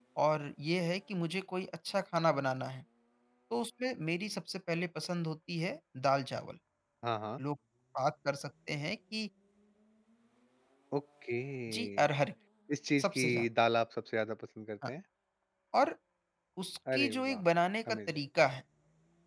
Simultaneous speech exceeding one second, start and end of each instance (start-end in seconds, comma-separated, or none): none